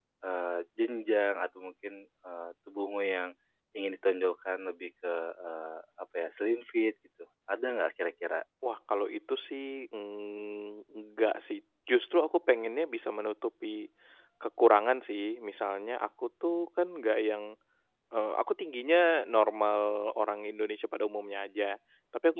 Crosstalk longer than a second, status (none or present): none